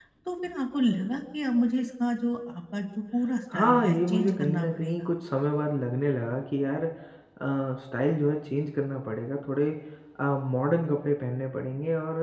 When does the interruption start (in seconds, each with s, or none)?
3.5 s